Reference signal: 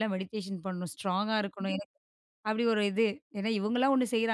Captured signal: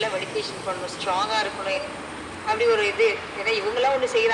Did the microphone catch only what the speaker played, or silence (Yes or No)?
Yes